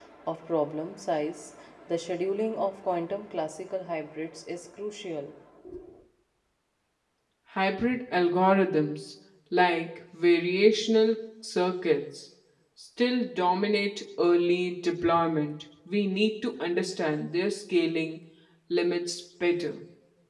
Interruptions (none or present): none